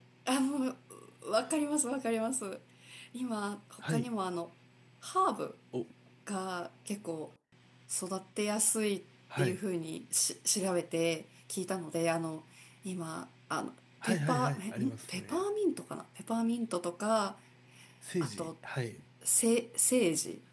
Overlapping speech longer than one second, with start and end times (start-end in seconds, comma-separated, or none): 14.0-15.4